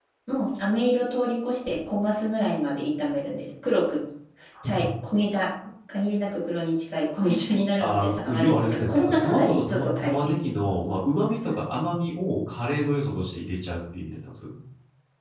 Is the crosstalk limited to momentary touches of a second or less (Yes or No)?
No